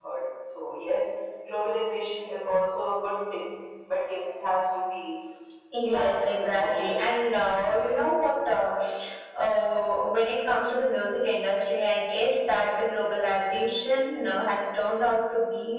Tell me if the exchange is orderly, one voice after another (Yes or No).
No